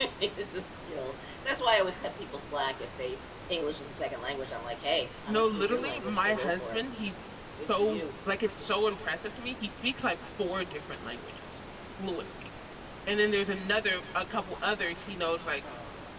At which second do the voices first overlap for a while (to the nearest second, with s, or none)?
5 s